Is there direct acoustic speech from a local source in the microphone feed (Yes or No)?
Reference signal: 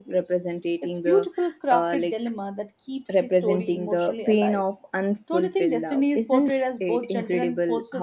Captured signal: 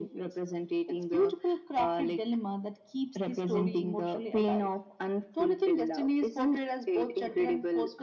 No